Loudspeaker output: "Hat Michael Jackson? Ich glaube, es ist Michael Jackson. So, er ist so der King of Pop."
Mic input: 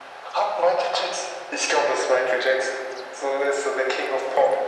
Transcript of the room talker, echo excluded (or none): none